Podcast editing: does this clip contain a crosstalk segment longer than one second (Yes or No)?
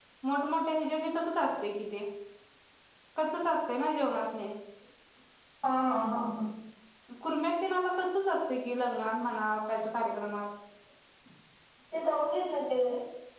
No